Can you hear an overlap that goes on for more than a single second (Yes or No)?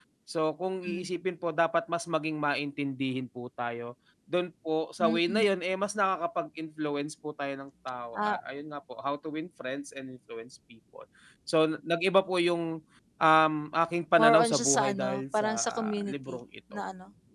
Yes